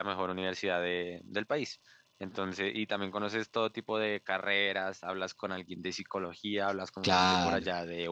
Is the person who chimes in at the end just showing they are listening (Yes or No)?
Yes